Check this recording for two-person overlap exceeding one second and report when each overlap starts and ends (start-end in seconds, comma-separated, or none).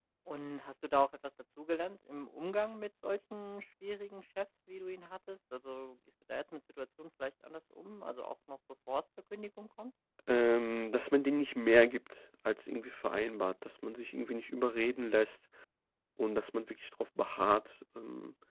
none